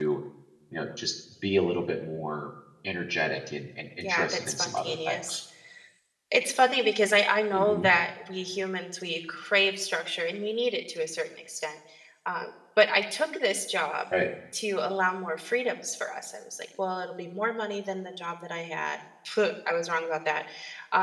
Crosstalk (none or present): present